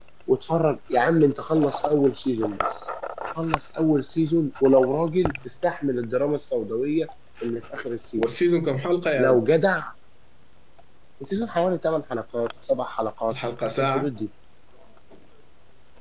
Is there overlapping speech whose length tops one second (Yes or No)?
No